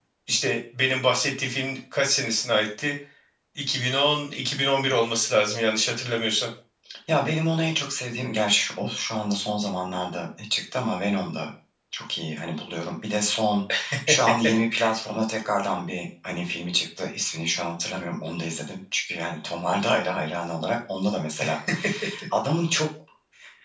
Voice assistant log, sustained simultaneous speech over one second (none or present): none